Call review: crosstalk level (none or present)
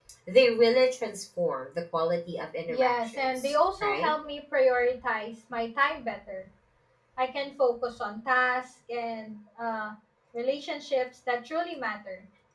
present